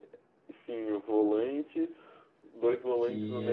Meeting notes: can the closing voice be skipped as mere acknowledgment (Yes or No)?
Yes